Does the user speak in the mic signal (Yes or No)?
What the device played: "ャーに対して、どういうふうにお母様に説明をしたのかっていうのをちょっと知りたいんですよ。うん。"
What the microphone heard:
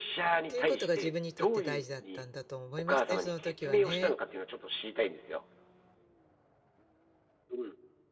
Yes